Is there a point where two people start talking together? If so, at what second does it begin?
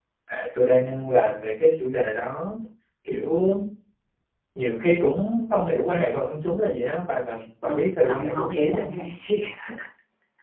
7.6 s

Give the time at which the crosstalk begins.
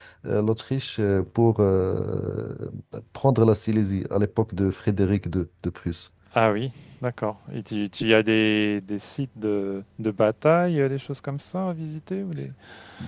none

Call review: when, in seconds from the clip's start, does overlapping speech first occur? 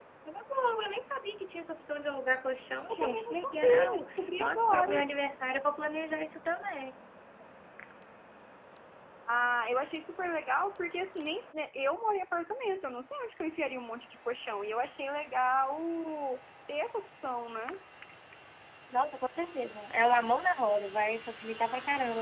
2.9 s

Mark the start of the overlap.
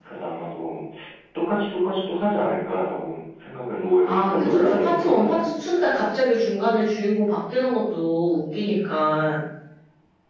4.1 s

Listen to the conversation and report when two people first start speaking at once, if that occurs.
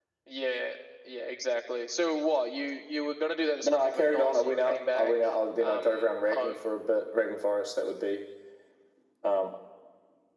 3.6 s

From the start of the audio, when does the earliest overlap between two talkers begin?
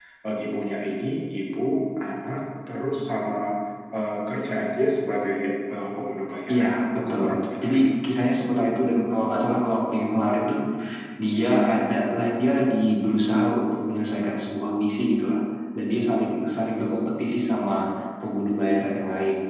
6.5 s

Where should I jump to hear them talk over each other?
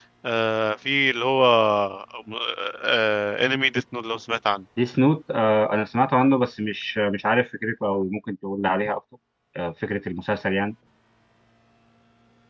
none

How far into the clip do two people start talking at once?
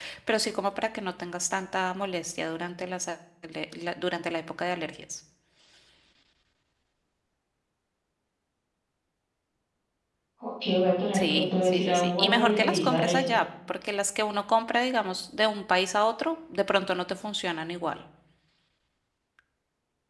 11.1 s

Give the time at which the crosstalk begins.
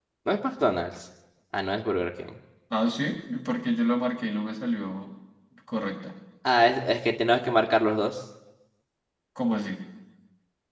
none

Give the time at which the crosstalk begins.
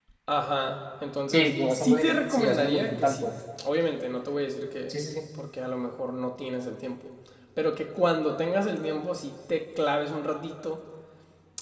1.3 s

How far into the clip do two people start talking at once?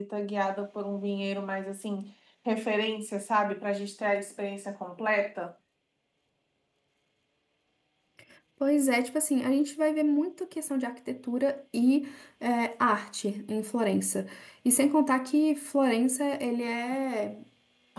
none

